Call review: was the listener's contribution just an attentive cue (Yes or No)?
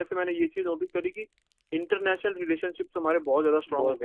No